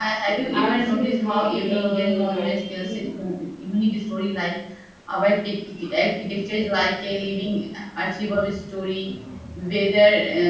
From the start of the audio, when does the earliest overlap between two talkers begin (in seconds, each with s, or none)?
0.5 s